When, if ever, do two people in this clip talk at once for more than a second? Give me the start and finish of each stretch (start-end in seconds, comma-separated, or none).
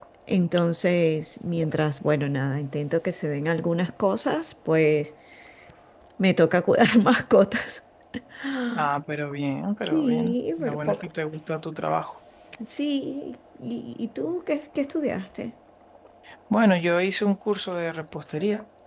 9.8-11.1